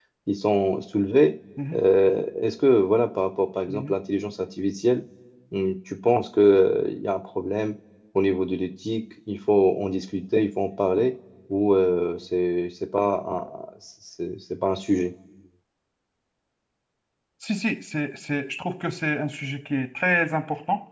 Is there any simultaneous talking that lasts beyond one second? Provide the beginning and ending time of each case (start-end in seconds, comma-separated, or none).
none